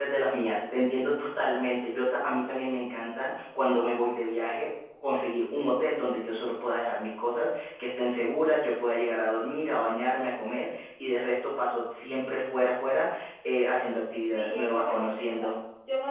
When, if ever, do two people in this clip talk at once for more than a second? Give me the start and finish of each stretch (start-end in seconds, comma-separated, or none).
14.2-15.5